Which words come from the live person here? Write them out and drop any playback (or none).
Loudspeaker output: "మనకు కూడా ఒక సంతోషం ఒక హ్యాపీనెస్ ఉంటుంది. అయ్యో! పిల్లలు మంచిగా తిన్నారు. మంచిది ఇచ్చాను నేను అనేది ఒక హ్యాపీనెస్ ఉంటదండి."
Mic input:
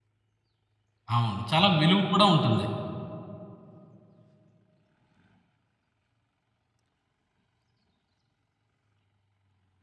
అవును. చాలా విలువ కూడా ఉంటుంది.